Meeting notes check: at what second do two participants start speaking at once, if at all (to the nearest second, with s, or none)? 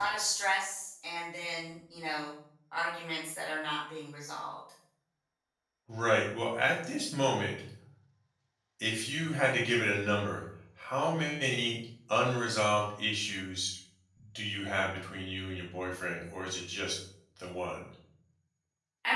none